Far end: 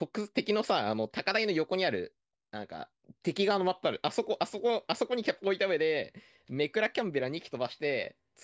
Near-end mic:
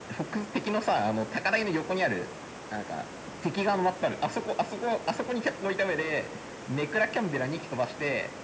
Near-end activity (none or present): none